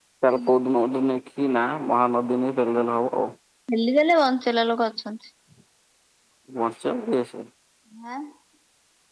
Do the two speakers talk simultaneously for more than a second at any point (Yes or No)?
No